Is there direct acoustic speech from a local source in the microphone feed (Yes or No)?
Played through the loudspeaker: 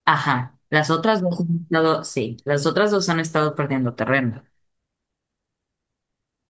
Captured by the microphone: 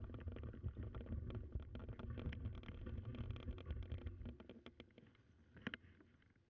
No